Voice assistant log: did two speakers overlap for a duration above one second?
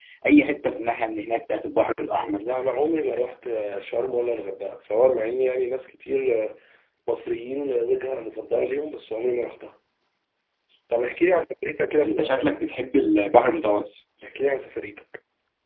No

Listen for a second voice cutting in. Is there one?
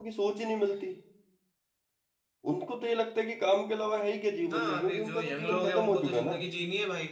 Yes, from 4.4 s

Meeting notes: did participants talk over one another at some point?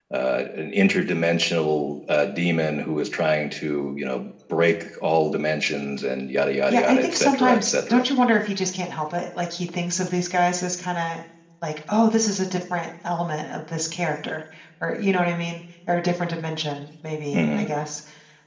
Yes, from 6.7 s

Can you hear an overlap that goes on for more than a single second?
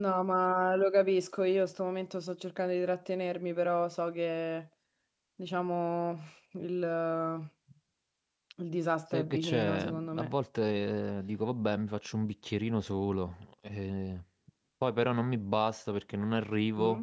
Yes, from 9.1 s

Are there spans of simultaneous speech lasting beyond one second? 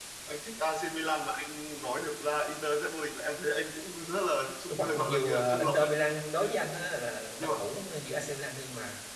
Yes, from 4.7 s

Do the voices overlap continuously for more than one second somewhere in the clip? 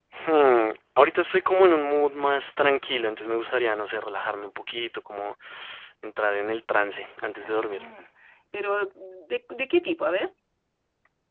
No

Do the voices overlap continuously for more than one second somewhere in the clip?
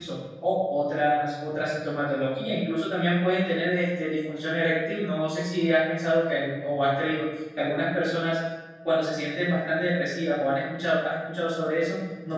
No

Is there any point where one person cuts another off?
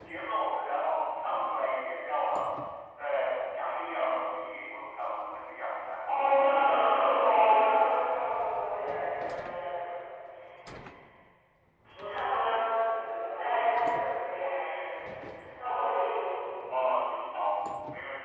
No

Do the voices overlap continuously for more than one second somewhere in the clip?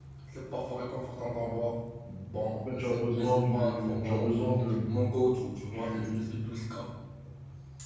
Yes, from 2.7 s

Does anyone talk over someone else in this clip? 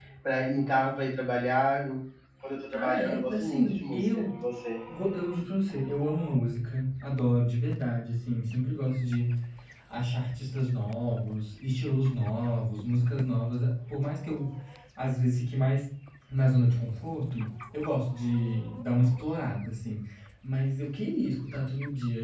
Yes, from 2.7 s

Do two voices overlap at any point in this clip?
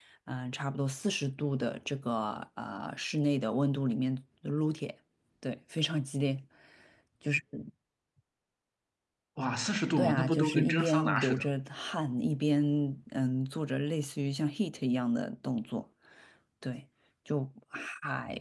Yes, from 10.0 s

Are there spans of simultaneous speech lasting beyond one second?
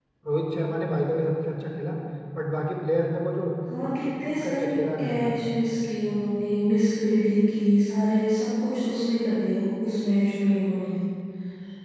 Yes, from 3.7 s

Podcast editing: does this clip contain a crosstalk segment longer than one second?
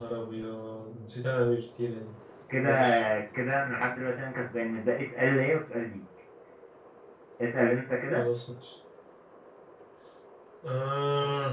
No

